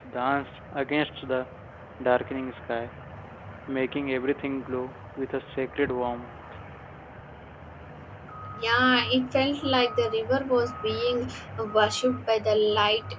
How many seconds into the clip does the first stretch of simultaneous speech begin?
none

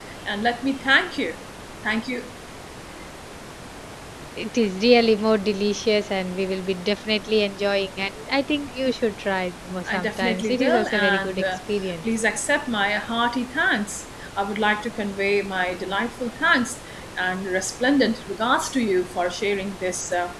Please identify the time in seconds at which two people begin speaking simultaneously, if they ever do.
10 s

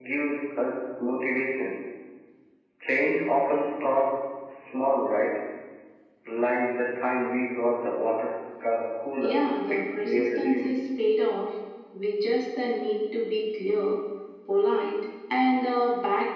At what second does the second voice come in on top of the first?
9 s

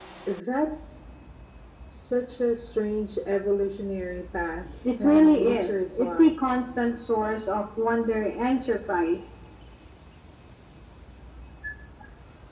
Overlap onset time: 5 s

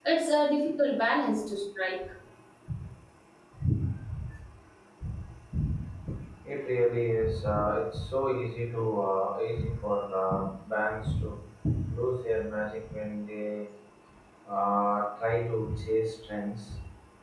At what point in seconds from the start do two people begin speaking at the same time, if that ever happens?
none

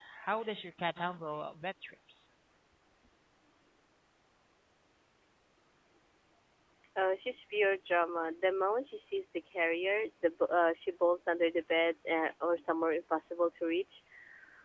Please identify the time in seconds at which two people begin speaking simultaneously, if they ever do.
none

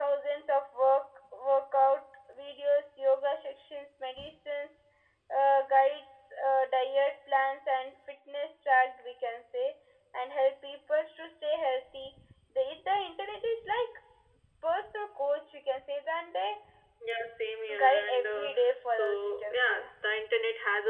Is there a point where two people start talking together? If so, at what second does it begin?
18 s

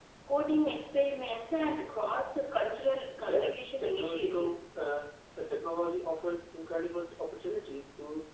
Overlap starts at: 3 s

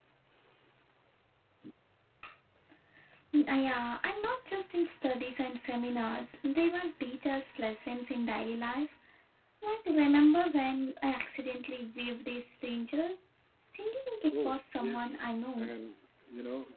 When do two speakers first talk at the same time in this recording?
14 s

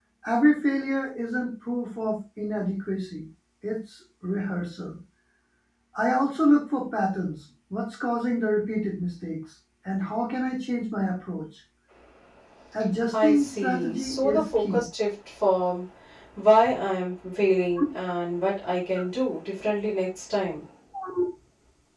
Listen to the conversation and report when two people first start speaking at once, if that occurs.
13 s

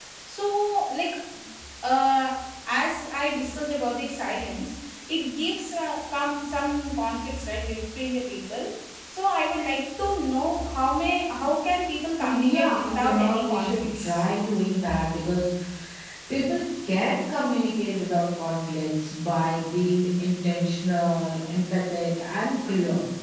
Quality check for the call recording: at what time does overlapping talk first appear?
12 s

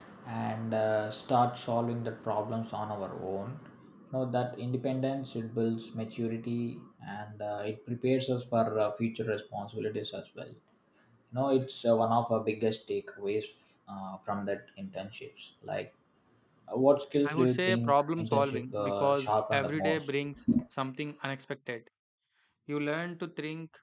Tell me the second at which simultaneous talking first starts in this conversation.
17 s

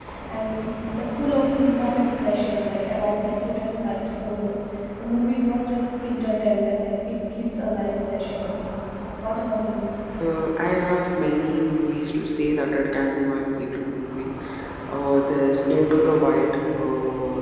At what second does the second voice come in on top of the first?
none

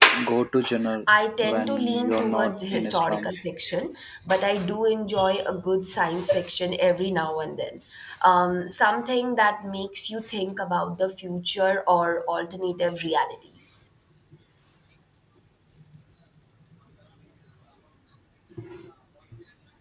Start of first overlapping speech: 1 s

